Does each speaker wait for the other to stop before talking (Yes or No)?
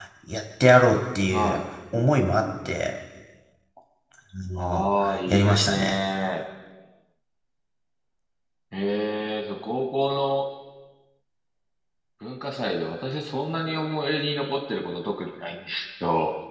No